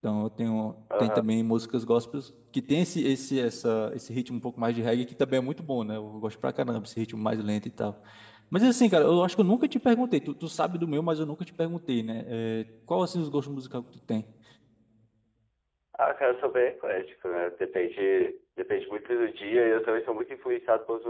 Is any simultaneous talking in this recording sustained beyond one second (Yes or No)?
No